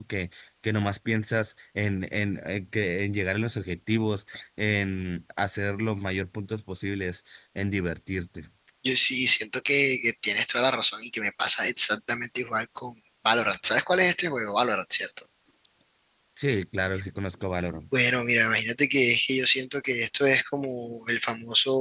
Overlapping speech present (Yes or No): No